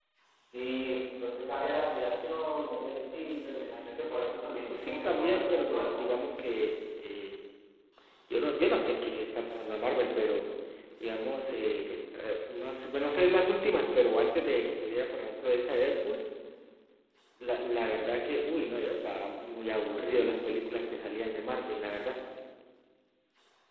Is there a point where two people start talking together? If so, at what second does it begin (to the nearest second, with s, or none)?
4 s